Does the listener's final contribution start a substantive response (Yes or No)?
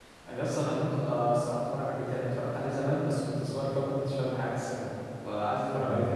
Yes